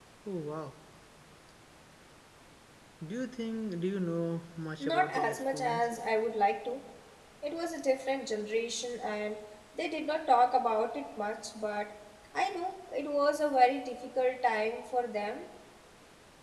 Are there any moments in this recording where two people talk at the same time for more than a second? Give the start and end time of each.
4.8-6.1

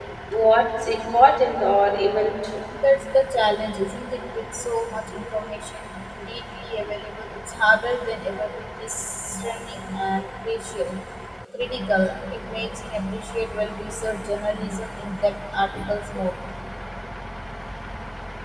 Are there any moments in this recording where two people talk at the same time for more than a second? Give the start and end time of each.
none

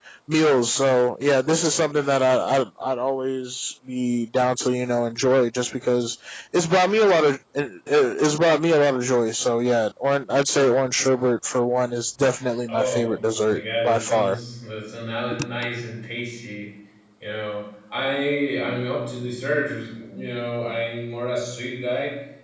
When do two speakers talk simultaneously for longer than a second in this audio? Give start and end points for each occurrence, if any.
12.7-14.4

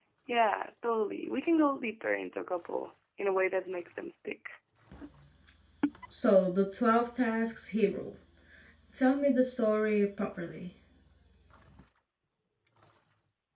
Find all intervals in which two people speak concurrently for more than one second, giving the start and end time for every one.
none

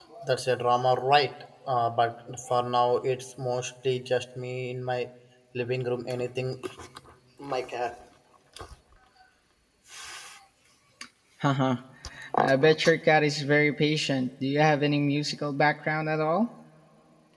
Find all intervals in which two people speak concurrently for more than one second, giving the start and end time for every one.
none

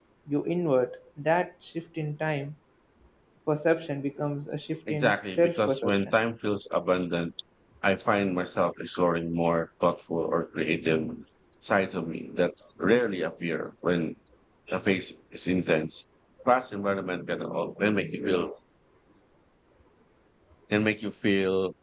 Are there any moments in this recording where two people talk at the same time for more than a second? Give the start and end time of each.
4.9-6.1

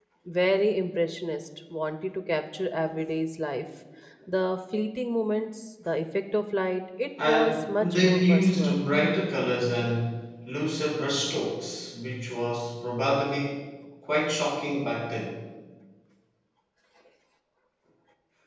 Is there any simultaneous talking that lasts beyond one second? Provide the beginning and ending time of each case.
7.2-8.8

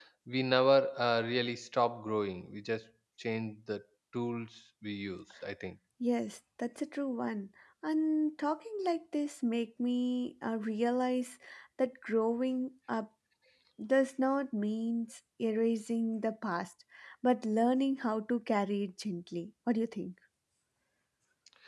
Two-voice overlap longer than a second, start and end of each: none

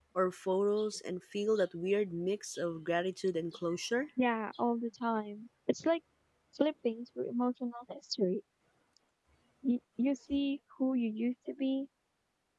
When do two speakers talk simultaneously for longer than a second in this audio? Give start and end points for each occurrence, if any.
none

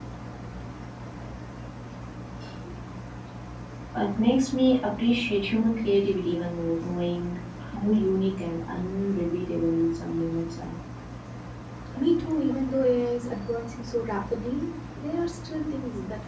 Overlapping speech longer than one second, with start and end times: none

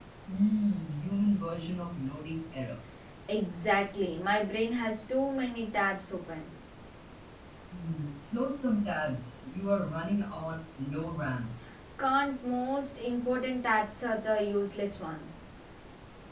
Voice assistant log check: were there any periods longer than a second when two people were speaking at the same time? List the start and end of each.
none

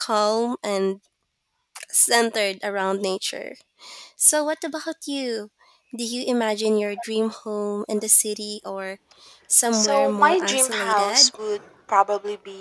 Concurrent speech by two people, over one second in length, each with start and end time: 9.7-11.3

